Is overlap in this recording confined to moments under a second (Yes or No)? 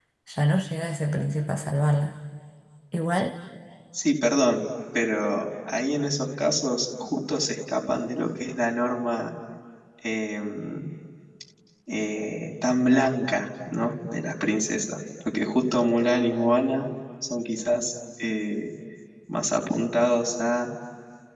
Yes